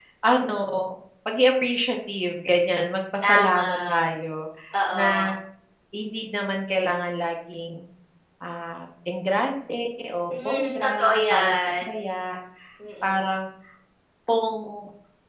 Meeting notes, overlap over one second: present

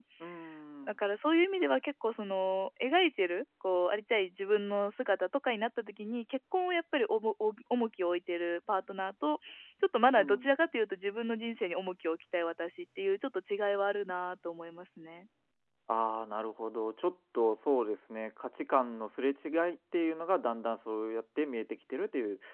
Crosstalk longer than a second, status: none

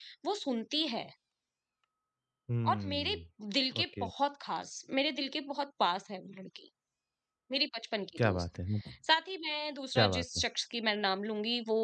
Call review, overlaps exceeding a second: none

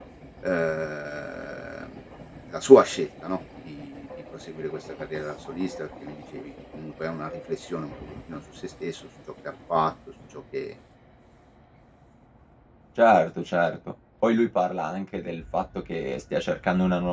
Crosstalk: none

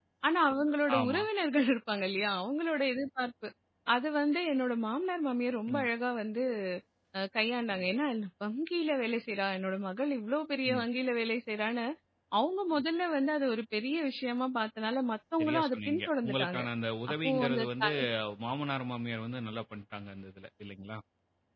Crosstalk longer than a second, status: present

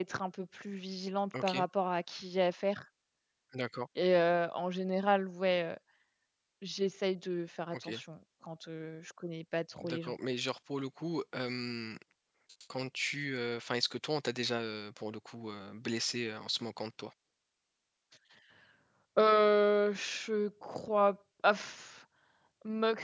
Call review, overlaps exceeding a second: none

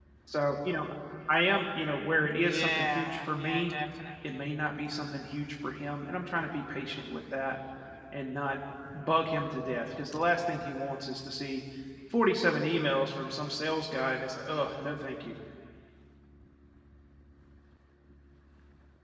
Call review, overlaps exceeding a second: present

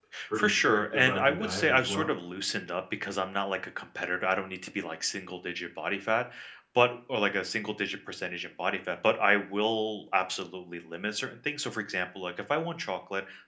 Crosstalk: present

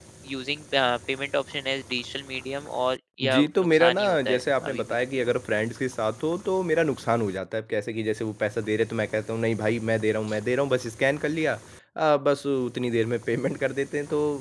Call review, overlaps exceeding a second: present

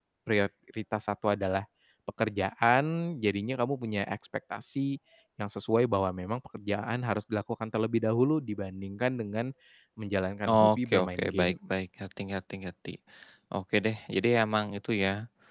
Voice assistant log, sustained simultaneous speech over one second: present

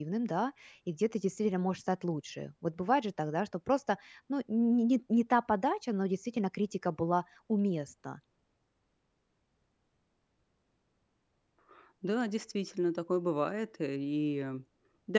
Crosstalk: none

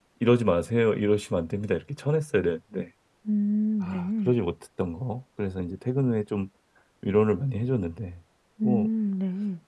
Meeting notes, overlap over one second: none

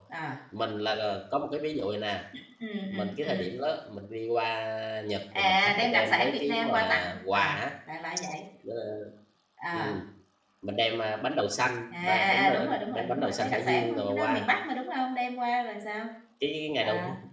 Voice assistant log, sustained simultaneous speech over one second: present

